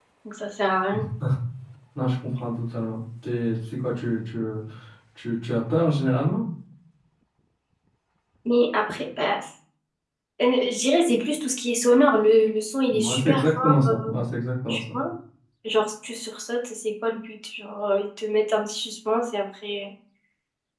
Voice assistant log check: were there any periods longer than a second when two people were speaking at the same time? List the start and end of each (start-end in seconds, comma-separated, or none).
12.9-14.1